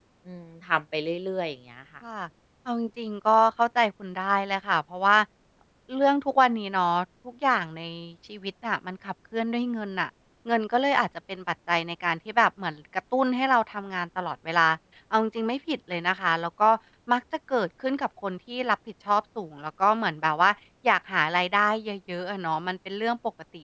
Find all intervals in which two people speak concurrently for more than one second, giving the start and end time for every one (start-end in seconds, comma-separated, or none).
none